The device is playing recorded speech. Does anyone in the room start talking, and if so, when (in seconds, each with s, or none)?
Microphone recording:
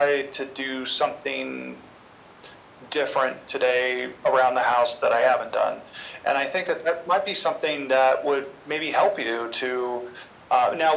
none